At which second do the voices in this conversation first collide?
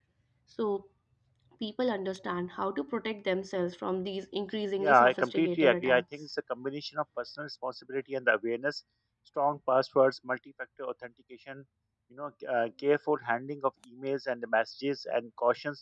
4.8 s

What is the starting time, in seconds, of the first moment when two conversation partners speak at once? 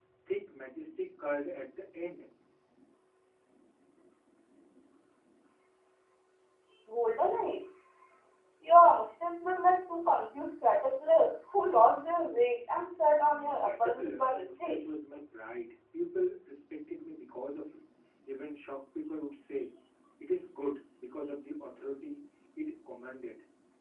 13.2 s

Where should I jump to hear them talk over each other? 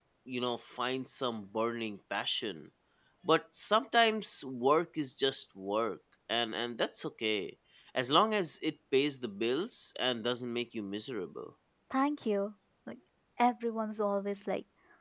none

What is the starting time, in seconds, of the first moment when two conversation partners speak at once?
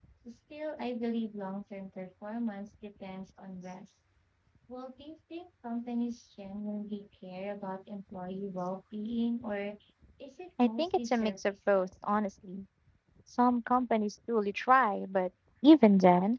10.6 s

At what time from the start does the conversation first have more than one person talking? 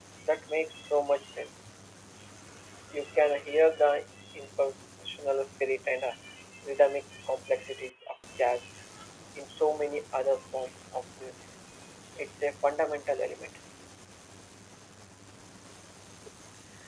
none

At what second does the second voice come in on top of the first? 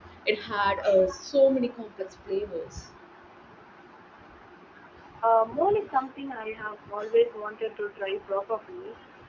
none

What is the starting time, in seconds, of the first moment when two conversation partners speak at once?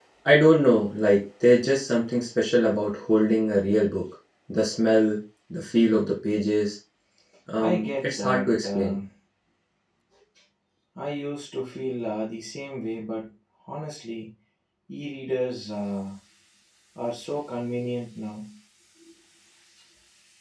7.6 s

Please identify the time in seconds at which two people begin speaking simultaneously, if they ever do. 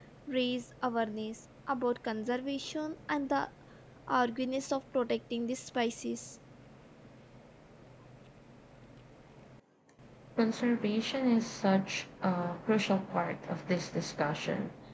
none

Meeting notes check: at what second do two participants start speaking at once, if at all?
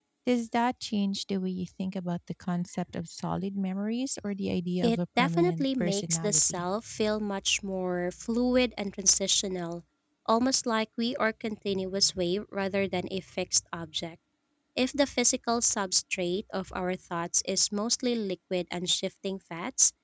4.8 s

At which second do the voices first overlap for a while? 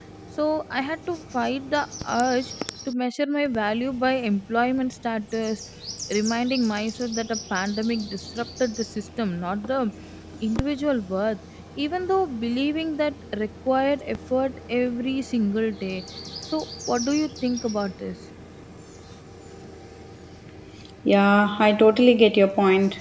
none

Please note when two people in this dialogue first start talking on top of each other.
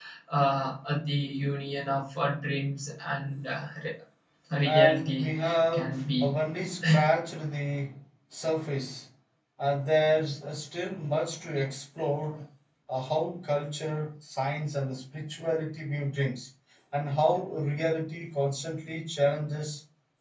4.6 s

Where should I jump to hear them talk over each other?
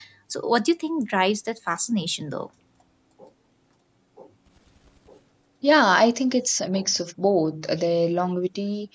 none

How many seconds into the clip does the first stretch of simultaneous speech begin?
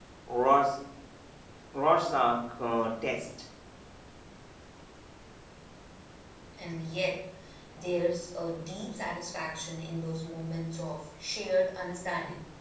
none

